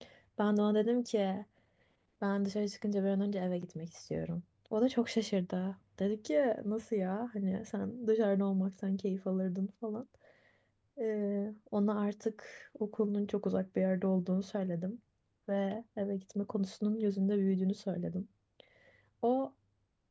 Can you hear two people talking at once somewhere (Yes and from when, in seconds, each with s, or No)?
No